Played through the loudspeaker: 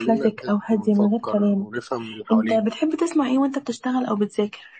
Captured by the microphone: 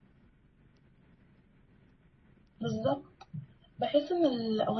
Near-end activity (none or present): present